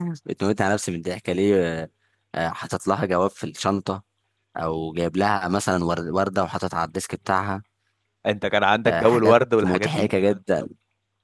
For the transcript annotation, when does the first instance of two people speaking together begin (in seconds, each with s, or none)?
8.8 s